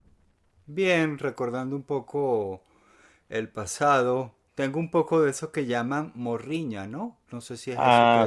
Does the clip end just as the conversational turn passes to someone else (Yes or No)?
Yes